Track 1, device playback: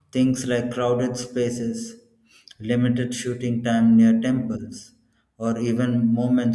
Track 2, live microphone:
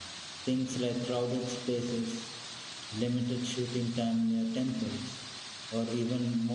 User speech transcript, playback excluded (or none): none